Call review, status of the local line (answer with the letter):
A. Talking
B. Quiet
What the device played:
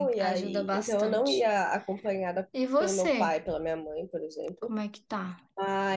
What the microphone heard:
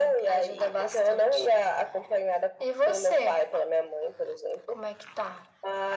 B